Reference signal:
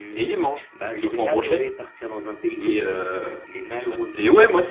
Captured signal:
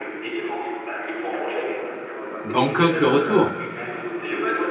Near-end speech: present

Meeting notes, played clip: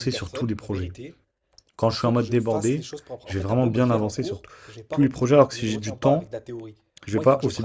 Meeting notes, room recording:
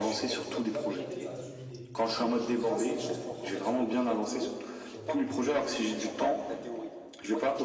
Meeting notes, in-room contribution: present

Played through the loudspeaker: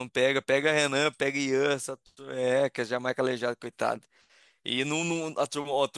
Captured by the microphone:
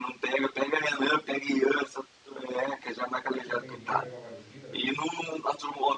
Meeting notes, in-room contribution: present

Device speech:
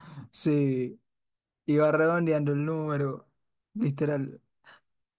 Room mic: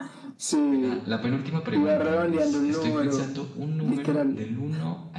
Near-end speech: present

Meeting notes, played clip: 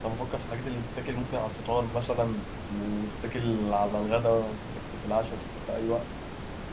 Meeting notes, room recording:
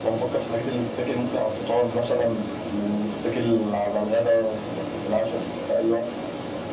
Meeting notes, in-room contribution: none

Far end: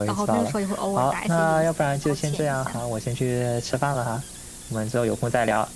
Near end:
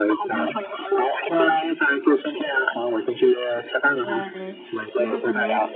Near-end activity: present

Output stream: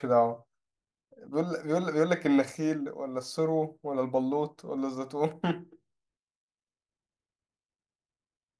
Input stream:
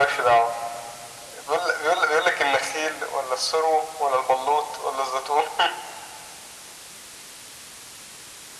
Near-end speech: none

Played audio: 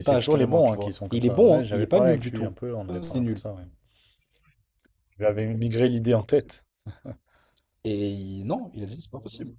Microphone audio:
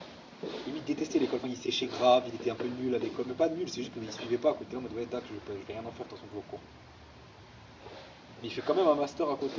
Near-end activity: present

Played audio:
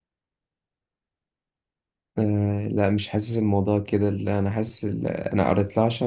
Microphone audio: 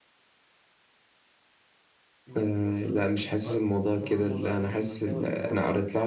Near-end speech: present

